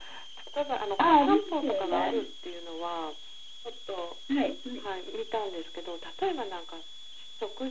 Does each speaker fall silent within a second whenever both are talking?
No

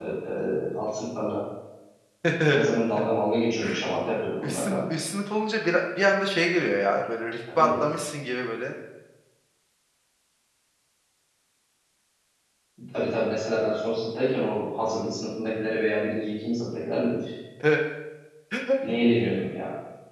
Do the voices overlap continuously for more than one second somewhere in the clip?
No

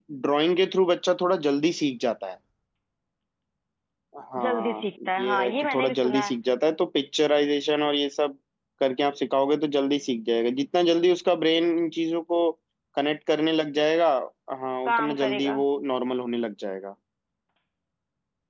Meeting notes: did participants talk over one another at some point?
Yes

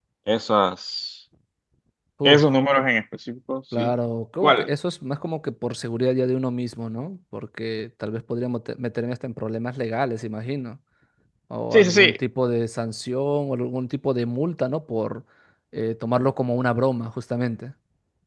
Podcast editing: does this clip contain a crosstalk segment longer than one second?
No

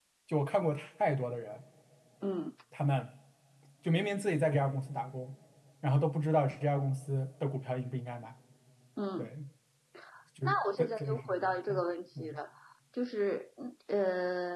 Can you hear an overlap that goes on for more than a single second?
Yes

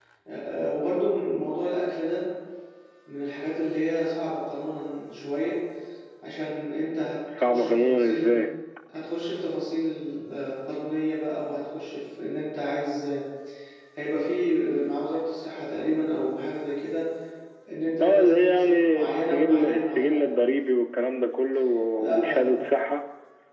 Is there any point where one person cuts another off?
Yes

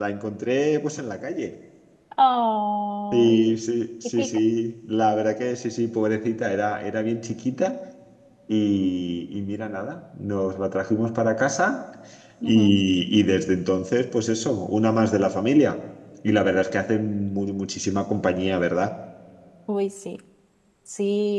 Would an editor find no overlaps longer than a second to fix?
Yes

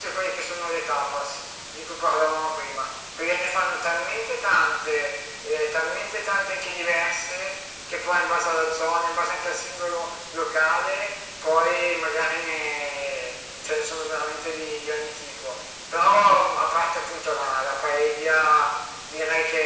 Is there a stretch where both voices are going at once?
No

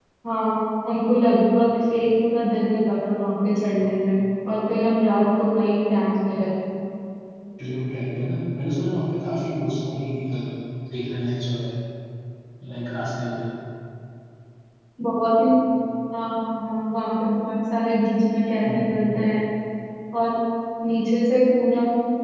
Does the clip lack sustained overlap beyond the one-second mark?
Yes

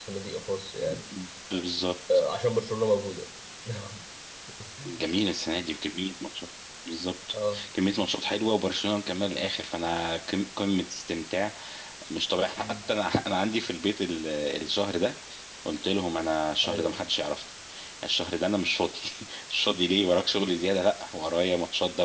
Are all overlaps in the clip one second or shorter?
Yes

